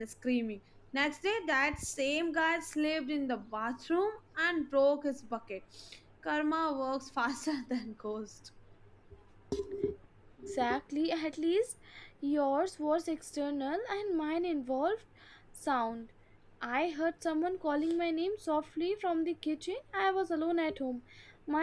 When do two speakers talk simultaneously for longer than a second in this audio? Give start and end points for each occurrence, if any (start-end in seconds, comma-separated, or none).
none